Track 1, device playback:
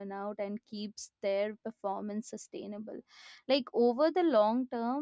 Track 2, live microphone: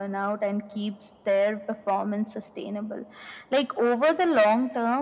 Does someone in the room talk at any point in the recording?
No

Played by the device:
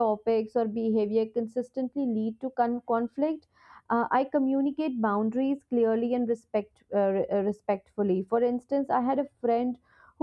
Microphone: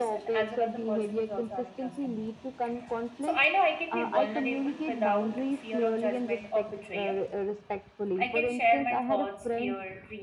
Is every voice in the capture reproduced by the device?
No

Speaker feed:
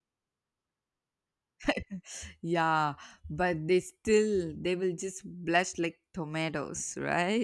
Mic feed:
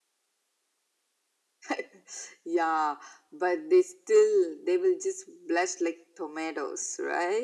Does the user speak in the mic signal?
No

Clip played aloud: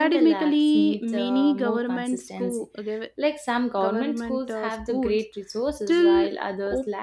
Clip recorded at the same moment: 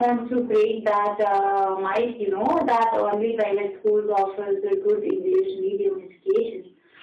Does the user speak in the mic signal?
Yes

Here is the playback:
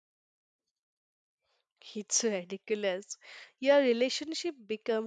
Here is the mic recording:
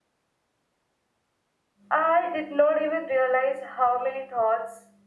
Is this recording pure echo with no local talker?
No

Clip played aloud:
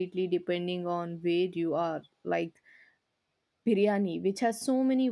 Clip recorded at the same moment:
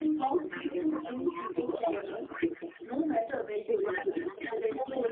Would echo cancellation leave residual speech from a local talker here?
Yes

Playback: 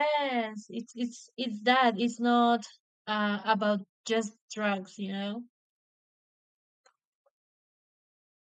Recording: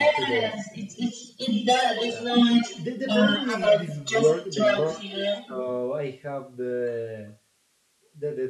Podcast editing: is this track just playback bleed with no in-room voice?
No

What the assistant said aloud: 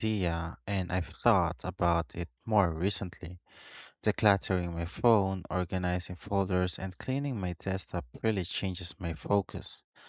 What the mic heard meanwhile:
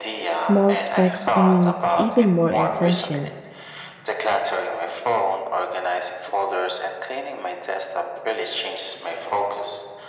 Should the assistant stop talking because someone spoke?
Yes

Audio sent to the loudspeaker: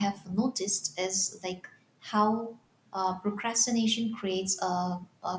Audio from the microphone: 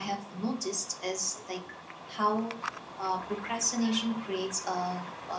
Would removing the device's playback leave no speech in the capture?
Yes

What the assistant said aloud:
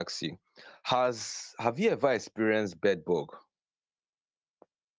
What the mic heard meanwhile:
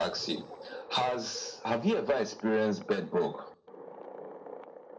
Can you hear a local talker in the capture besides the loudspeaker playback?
No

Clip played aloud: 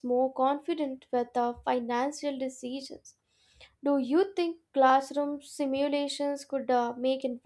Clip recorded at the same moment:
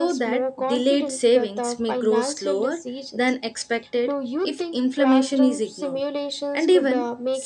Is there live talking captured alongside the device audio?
Yes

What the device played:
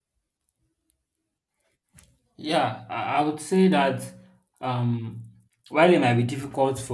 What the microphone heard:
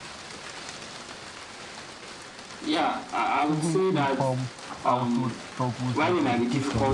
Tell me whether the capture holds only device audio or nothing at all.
No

